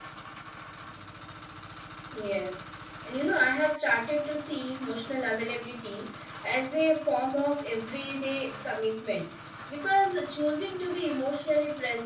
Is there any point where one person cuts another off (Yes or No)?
No